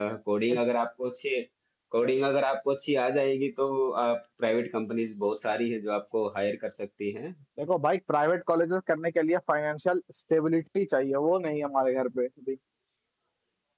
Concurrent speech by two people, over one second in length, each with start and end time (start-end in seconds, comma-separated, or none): none